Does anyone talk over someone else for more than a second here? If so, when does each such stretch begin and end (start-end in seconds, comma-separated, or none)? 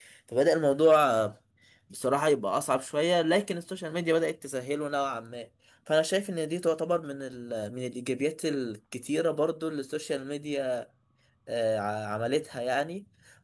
none